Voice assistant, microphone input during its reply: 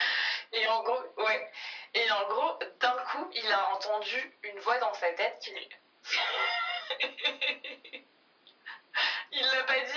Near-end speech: none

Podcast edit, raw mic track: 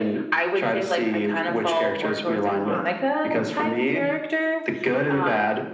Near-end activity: none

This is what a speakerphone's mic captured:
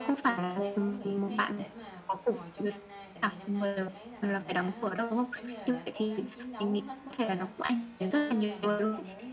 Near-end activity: present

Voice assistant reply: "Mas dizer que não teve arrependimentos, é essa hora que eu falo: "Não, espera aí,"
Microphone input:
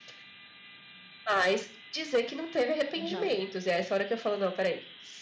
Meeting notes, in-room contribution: present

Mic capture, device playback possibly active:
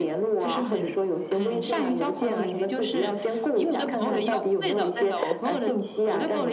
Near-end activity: none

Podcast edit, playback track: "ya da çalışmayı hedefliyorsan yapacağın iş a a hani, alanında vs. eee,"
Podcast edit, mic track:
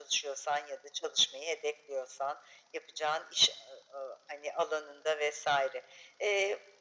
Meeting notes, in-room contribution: none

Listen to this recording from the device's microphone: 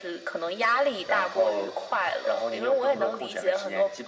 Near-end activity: none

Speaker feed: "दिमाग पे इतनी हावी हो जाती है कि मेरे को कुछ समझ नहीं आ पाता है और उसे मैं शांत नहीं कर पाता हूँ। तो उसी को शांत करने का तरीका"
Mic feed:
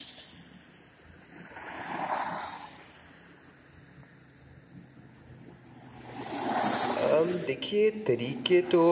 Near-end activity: present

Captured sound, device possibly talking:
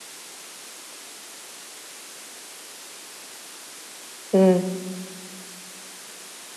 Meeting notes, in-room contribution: present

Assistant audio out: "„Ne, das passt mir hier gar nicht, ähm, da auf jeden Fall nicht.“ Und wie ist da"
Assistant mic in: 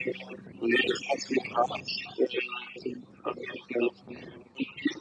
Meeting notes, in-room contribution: none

